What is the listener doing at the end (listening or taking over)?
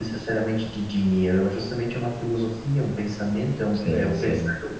listening